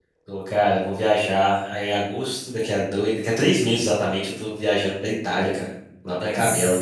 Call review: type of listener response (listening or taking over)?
taking over